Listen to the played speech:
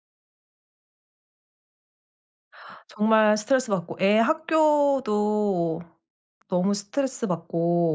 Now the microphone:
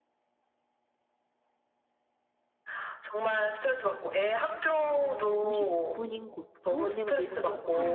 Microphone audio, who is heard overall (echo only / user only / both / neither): both